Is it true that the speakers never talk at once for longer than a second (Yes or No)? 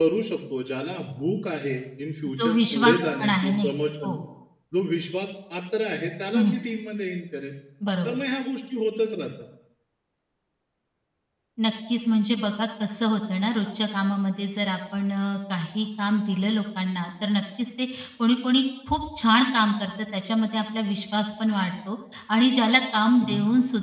No